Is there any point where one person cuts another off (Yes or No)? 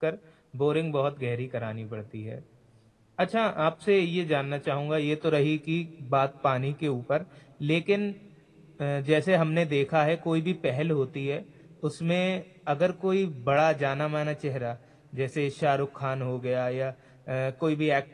No